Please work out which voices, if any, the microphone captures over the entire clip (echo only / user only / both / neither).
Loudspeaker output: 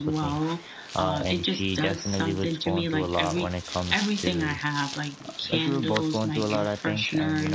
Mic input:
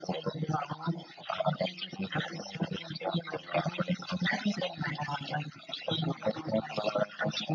echo only